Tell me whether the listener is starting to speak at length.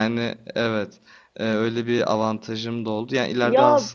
No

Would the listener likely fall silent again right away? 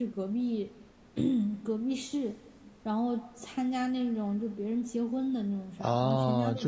No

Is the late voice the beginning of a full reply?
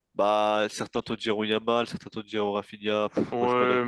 Yes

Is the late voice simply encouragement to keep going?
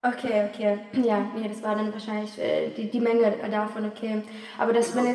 Yes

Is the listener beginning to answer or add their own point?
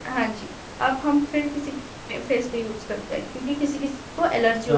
Yes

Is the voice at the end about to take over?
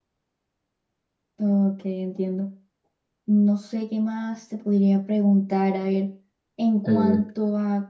No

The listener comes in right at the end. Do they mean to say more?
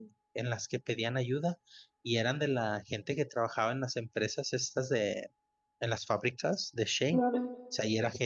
No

